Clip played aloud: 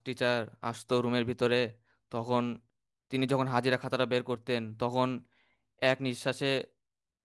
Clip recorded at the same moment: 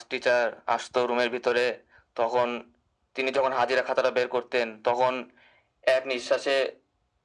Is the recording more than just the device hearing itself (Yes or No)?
No